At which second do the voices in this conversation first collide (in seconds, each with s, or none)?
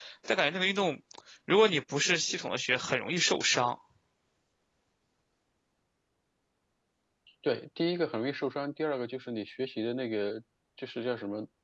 none